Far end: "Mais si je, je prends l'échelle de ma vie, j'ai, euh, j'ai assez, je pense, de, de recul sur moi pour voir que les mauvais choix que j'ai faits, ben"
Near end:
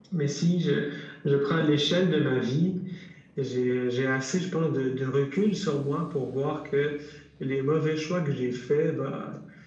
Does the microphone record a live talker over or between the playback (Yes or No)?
No